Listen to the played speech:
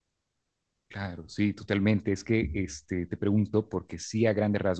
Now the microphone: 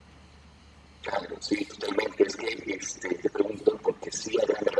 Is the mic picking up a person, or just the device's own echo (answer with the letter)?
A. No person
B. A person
A